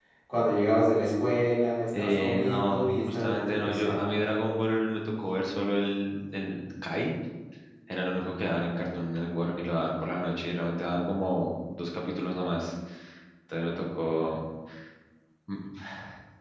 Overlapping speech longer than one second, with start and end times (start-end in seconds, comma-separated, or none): 1.9-4.0